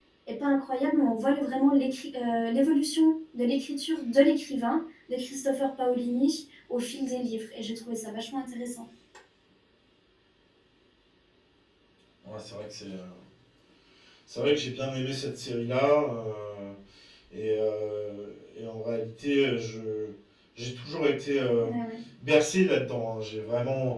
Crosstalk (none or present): none